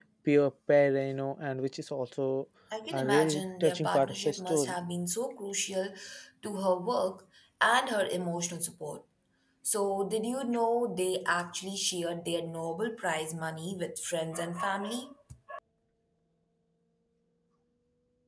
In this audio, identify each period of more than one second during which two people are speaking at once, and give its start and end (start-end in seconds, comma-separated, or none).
2.9-4.8